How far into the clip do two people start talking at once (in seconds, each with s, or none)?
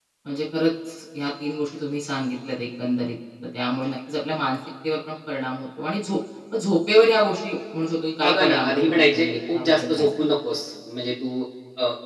8.2 s